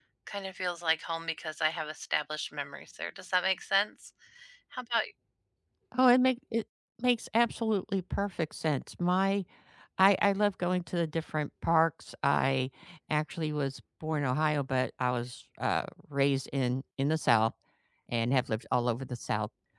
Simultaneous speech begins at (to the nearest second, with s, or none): none